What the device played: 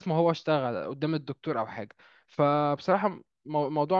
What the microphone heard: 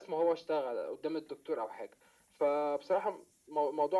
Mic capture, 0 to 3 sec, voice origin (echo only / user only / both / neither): echo only